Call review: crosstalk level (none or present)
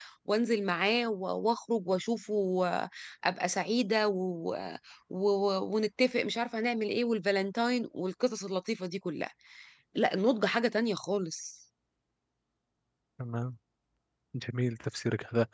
none